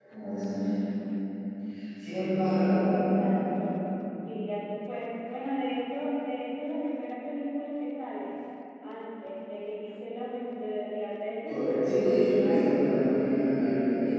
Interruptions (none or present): present